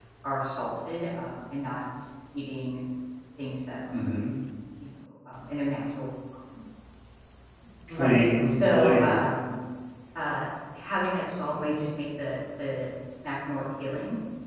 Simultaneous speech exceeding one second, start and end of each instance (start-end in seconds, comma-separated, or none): 7.9-9.3